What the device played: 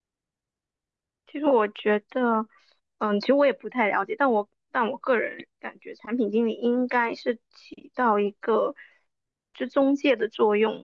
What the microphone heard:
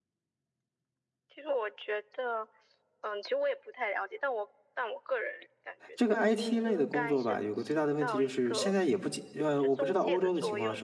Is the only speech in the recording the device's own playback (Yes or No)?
No